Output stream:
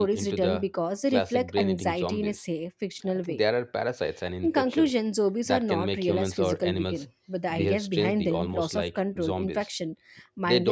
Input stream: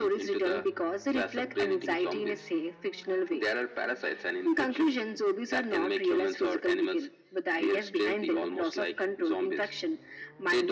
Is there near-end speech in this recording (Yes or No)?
No